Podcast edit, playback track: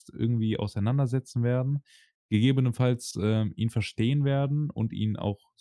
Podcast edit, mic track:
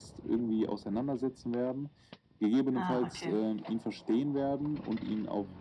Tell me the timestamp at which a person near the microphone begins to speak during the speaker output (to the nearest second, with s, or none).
3 s